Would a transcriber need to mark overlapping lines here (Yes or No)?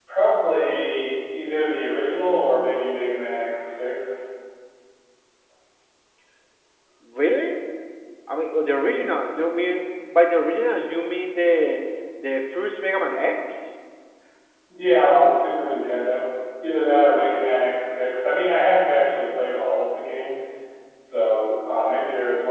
No